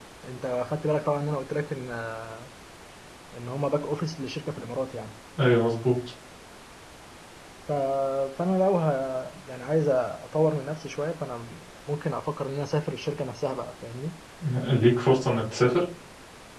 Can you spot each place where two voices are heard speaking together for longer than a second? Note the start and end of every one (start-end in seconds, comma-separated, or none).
none